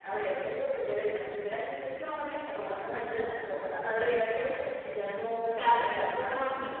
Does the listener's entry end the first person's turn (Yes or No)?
Yes